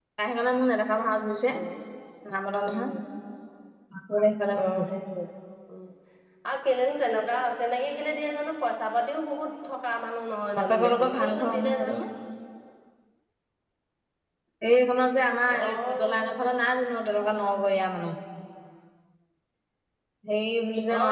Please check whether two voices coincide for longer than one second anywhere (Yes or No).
Yes